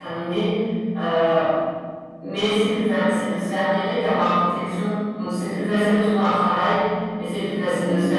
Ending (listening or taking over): listening